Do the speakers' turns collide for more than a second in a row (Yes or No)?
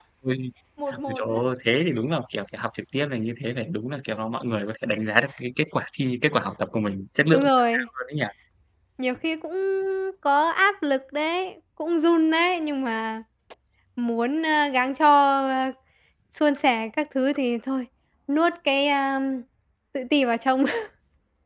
No